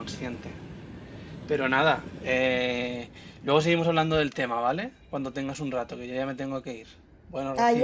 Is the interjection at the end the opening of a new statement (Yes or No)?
Yes